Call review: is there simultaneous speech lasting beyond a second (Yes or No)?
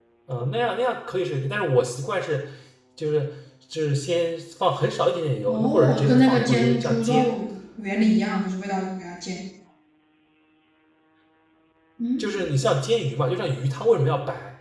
Yes